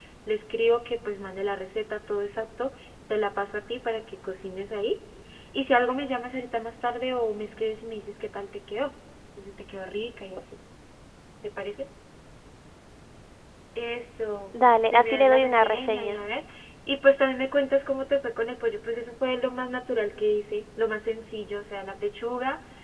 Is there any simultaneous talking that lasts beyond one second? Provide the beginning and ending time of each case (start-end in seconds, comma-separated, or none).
14.5-16.2